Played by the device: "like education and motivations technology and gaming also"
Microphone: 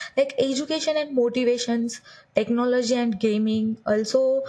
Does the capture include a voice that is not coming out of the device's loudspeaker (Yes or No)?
No